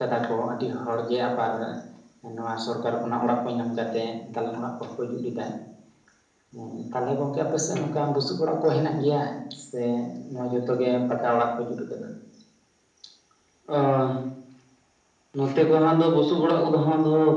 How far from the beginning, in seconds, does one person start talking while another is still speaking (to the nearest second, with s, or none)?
none